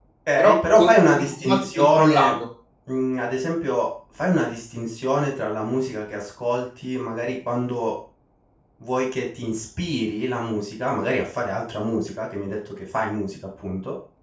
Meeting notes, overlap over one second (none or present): present